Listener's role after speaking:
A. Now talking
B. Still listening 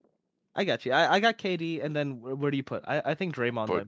A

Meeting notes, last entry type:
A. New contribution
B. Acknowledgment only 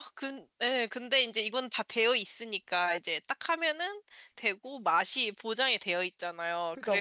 B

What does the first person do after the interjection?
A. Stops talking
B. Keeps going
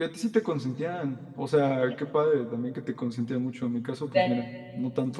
B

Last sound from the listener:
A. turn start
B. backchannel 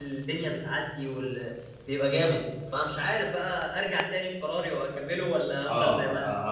A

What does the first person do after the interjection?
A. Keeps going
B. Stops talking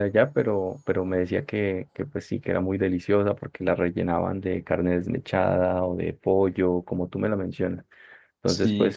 A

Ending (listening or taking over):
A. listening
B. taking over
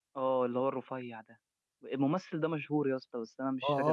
B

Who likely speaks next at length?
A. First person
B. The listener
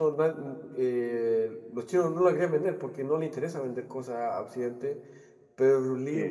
A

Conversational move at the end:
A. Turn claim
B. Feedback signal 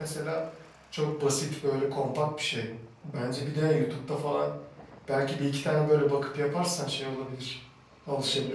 A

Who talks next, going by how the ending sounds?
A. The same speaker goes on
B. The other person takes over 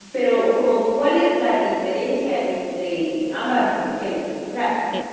A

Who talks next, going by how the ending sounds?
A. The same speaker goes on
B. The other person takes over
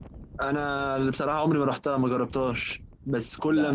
A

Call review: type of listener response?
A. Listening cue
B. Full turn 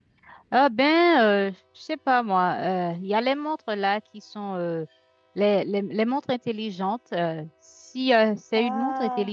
A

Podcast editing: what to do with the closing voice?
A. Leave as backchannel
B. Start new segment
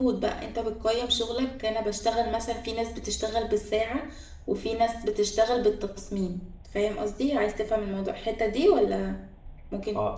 B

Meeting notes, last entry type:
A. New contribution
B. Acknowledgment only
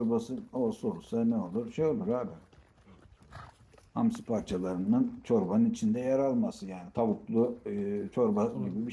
A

